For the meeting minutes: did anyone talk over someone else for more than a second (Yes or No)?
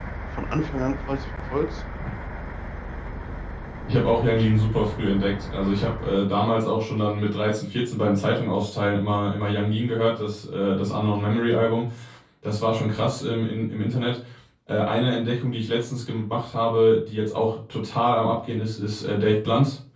No